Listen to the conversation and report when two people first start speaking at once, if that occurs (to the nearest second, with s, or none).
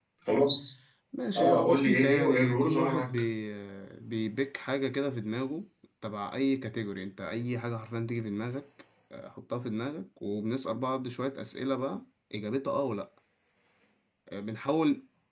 1 s